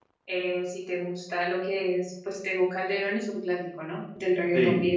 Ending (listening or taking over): taking over